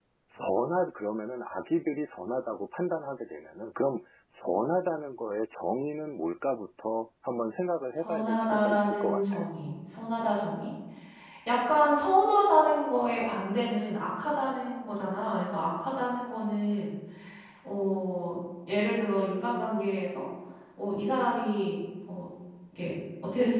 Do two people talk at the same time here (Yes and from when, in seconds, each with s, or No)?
Yes, from 8.0 s